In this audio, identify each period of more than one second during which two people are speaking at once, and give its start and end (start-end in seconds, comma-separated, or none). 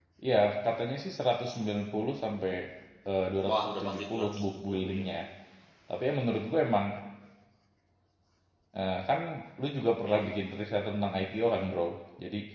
3.5-5.0